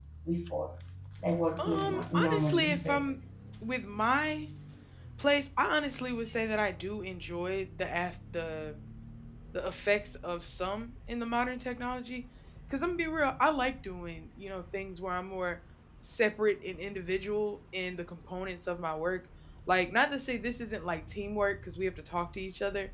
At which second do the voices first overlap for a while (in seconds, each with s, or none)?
1.6 s